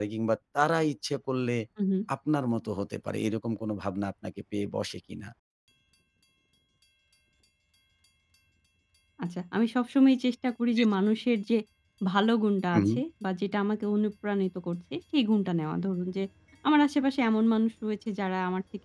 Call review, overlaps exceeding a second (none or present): none